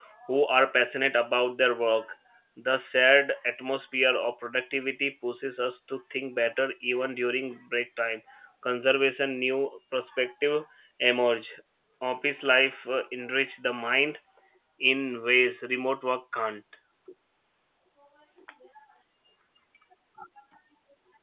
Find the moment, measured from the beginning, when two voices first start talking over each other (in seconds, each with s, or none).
none